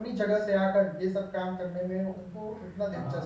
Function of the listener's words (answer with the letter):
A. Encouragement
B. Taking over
B